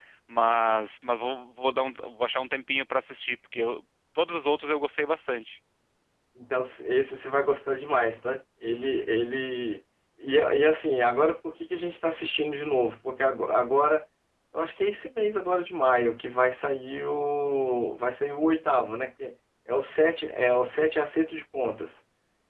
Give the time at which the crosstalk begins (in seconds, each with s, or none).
none